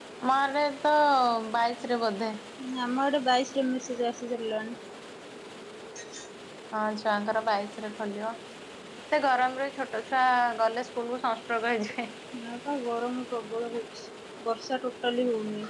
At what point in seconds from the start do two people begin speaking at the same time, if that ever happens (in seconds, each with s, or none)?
none